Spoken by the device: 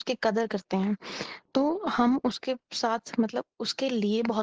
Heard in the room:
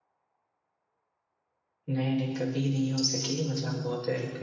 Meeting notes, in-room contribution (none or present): present